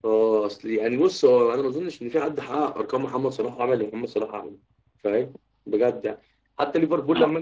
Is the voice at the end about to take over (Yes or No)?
No